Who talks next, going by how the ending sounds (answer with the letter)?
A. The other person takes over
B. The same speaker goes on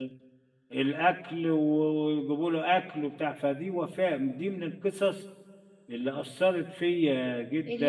A